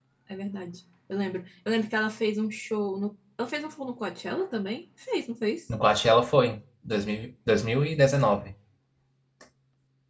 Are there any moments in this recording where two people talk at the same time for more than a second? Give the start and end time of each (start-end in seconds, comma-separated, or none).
none